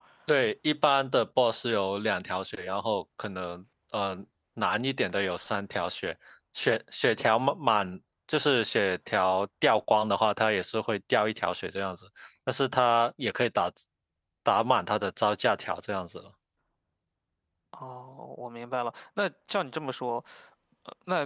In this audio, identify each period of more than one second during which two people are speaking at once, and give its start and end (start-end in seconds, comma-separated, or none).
none